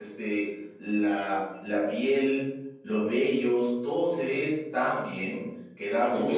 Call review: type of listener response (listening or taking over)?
taking over